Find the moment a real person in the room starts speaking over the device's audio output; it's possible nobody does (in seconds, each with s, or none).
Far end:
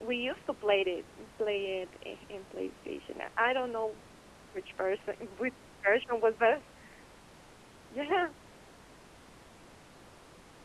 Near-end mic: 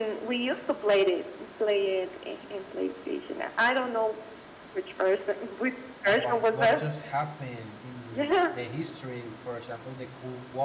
6.0 s